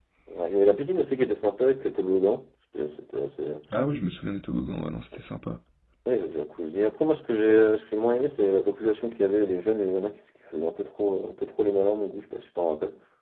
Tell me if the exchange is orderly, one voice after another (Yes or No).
Yes